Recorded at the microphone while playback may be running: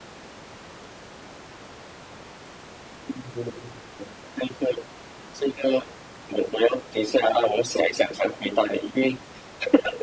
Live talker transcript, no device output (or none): none